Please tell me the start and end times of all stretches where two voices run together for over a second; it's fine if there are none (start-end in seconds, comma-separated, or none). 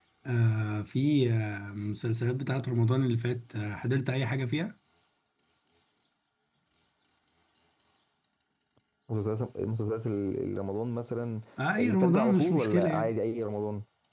11.8-13.1